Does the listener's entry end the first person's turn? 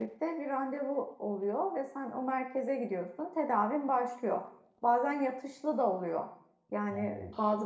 No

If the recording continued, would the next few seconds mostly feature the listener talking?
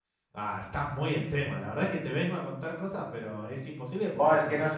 Yes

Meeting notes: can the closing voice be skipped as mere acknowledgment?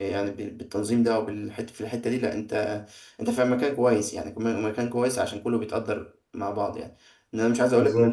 Yes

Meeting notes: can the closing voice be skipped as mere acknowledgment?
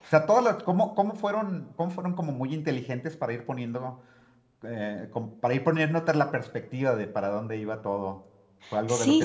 Yes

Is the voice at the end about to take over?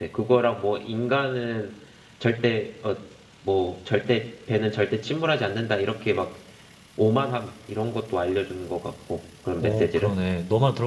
Yes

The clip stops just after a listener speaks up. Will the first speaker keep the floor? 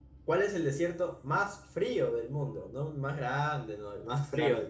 No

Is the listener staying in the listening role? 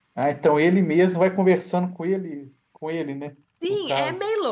No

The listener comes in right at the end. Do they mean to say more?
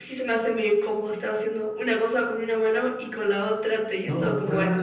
Yes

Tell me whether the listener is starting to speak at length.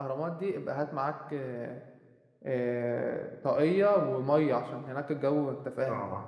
Yes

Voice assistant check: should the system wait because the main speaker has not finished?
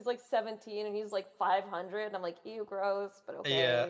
No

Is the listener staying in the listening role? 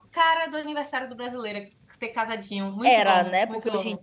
No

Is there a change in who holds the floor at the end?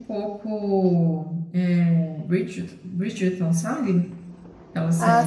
Yes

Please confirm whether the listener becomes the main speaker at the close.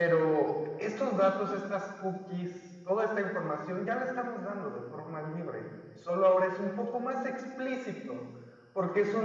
No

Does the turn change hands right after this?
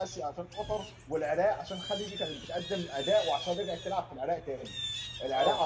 No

